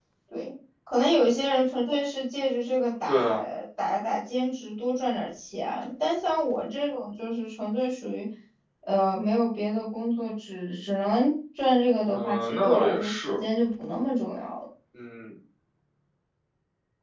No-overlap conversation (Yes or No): No